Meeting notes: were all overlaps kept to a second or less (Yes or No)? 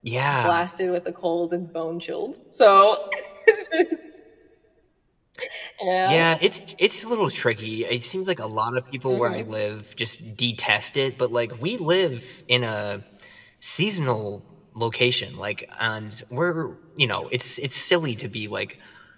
Yes